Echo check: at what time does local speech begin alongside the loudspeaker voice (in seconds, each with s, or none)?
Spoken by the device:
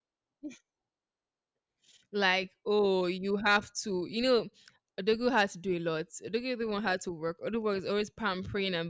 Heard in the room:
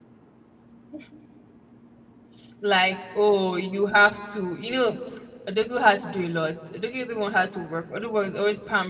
none